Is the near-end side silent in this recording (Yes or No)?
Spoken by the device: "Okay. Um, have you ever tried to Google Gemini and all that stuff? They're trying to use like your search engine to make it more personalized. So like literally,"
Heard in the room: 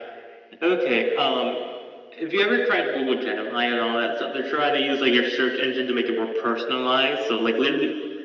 Yes